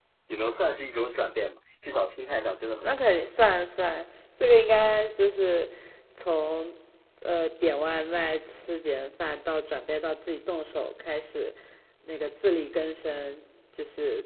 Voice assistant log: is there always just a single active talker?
Yes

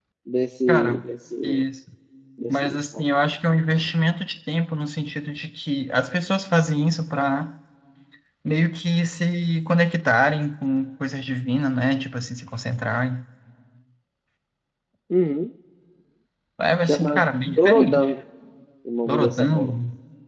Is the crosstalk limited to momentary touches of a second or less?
No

